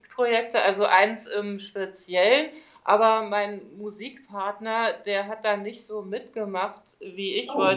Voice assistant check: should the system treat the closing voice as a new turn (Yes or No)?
No